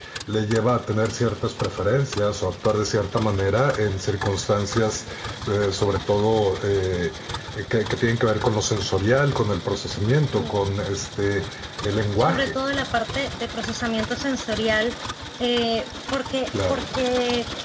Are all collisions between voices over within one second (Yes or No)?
Yes